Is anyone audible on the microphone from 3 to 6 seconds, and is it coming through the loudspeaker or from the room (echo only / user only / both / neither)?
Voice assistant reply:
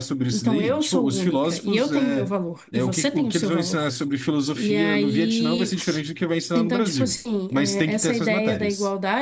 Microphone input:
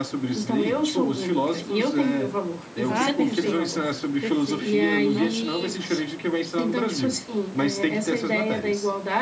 both